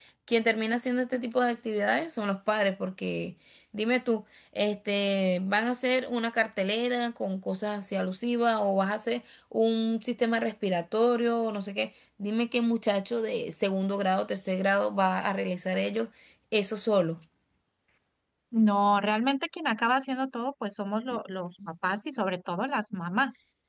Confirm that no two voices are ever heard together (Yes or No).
Yes